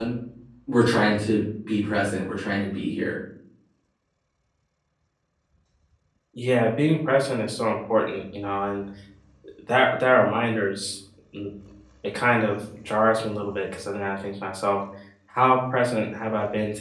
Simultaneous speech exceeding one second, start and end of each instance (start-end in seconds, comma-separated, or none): none